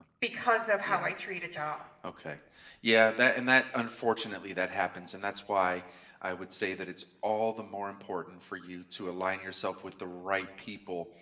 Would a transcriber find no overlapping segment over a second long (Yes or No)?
Yes